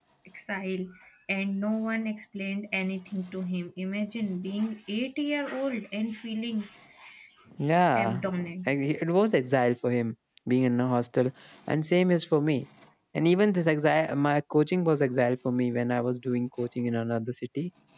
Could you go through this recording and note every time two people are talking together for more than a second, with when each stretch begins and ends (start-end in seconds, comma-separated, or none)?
none